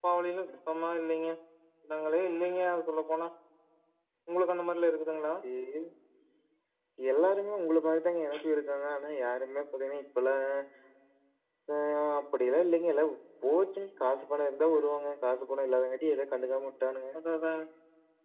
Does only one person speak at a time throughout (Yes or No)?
Yes